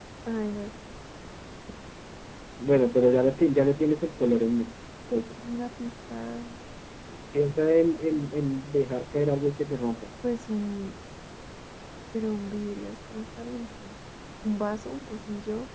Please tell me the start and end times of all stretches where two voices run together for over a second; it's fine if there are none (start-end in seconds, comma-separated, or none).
none